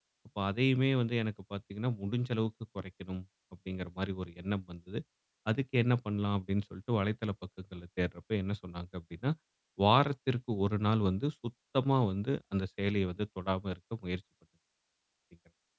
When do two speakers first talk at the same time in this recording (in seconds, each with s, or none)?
none